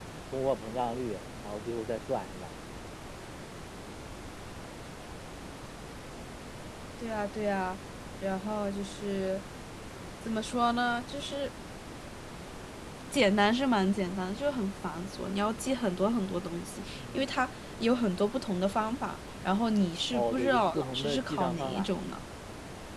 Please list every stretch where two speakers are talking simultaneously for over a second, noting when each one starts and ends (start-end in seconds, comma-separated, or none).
20.1-21.9